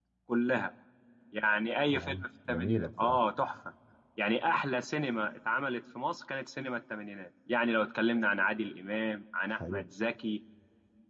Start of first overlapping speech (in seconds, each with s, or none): 1.9 s